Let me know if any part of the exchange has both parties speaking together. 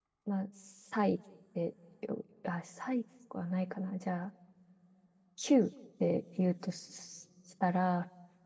No

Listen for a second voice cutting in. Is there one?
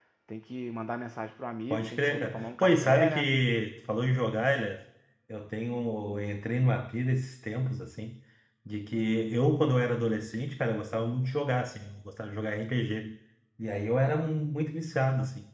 Yes, from 1.7 s

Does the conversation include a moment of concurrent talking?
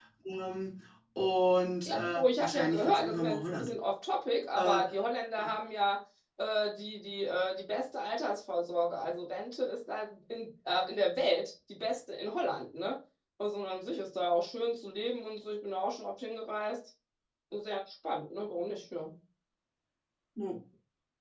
Yes, from 1.9 s

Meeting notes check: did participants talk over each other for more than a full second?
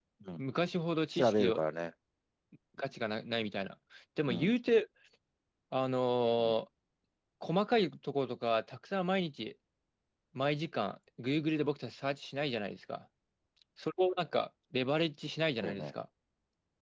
No

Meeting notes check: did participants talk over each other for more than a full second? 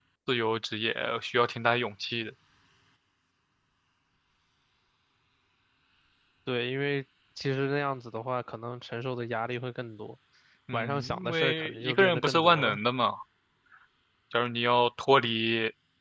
Yes, from 10.7 s

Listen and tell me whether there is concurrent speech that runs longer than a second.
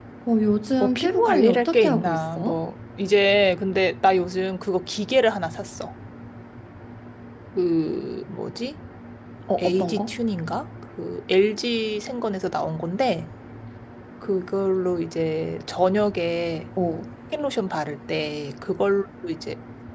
Yes, from 0.8 s

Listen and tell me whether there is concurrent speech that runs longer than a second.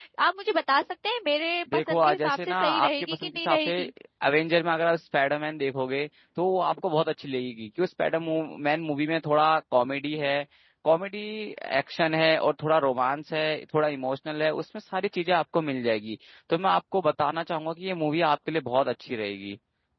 Yes, from 1.7 s

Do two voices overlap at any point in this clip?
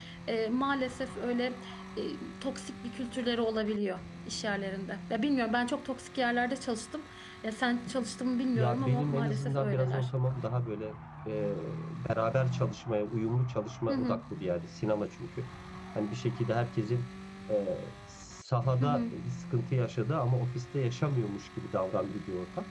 Yes, from 8.5 s

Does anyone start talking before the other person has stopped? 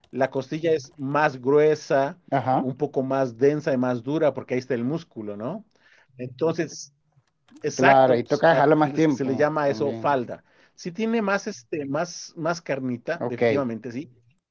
Yes, from 7.8 s

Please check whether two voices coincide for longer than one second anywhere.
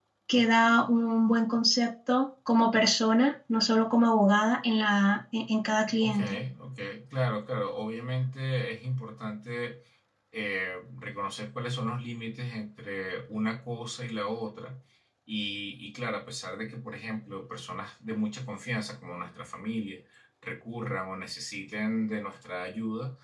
No

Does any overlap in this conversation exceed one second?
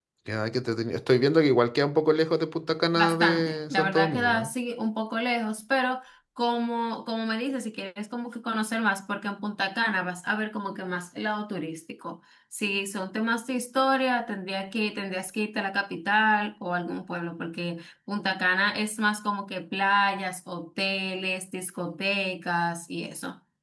Yes, from 3.0 s

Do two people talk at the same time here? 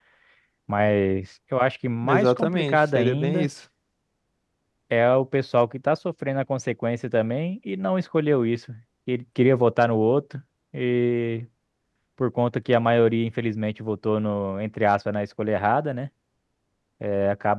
Yes, from 2.0 s

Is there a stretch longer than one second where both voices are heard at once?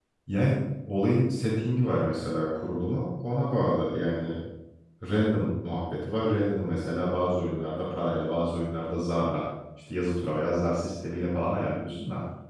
No

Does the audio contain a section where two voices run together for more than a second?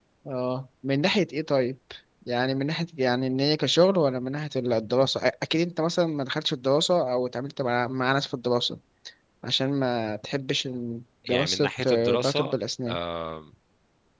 Yes, from 11.3 s

